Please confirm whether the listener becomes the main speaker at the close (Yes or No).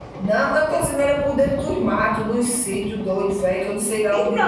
Yes